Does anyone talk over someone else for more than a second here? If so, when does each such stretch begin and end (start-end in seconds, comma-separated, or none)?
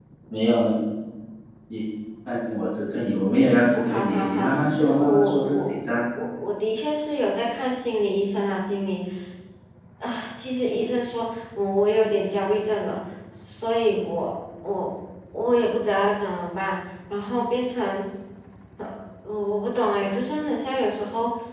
3.7-5.8